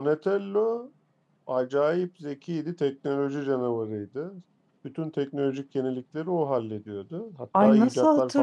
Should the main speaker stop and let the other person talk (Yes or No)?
Yes